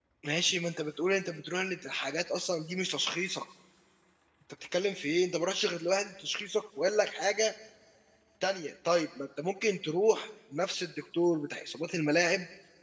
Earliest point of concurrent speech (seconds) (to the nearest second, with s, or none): none